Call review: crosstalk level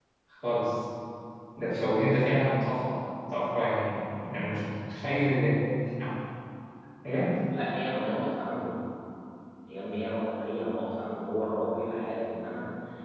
none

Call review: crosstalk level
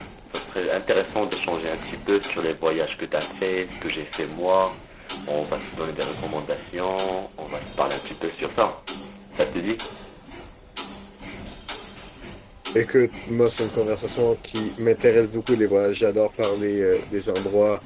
none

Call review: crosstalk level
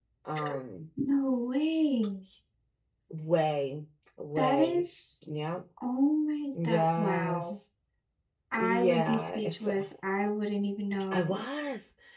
present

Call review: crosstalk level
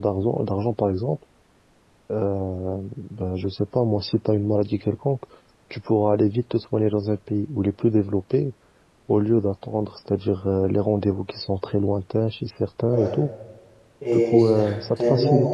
present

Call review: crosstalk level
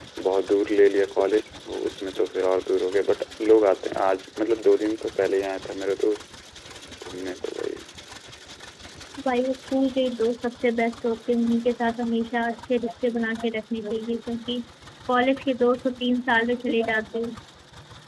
none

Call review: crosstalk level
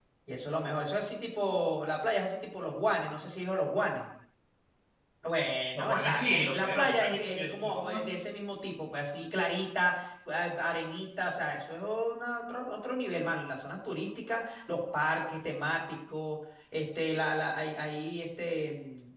present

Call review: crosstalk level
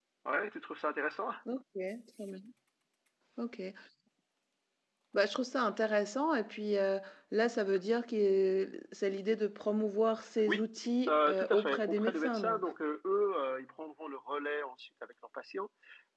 present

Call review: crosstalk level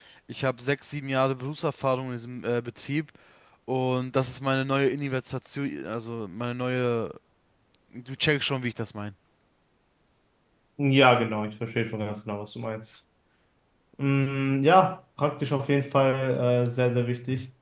none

